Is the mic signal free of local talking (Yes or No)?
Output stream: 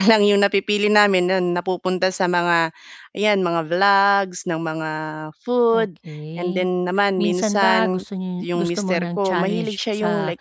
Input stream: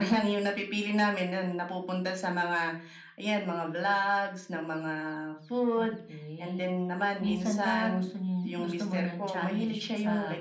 Yes